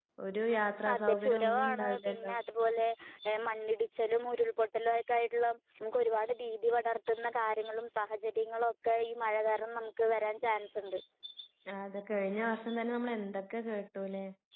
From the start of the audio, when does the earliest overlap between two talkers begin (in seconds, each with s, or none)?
0.9 s